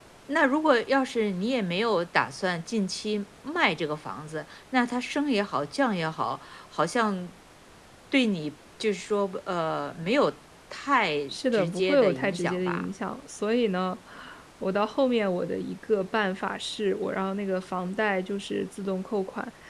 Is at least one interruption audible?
Yes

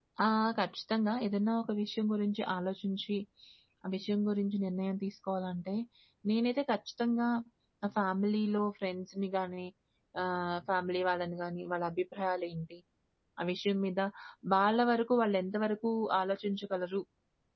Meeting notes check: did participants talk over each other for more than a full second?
No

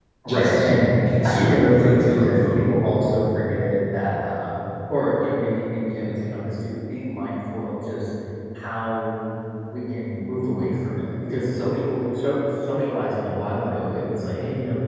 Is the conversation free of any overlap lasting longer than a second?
No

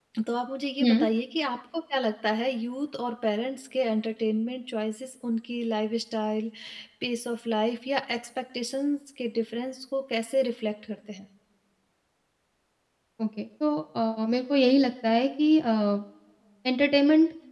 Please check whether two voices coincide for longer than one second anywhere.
No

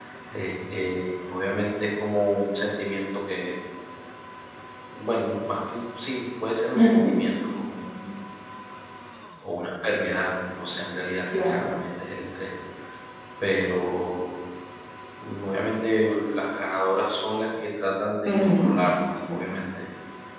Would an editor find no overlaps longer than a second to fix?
Yes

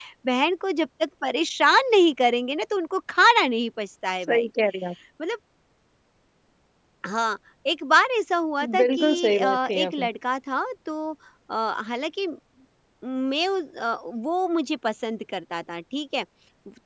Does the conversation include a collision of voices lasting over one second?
Yes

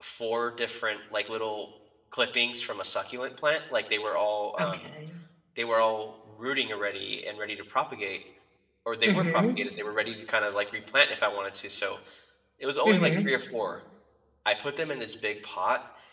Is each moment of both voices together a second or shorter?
Yes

